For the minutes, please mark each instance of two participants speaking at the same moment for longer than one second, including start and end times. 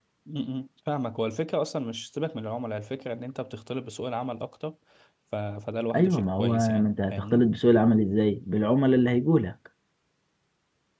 5.9-7.4

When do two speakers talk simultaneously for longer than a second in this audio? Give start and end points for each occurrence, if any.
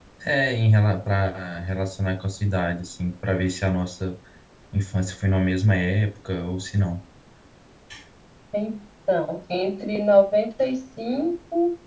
none

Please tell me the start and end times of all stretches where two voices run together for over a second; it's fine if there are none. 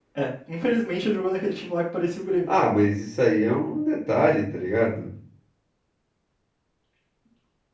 none

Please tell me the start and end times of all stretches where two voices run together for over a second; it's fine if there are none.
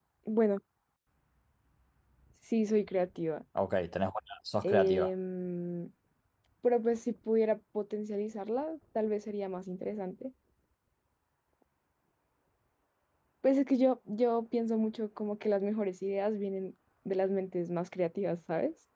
none

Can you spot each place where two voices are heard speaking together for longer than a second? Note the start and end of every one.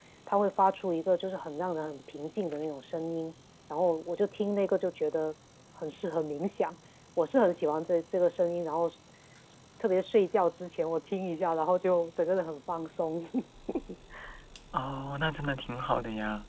none

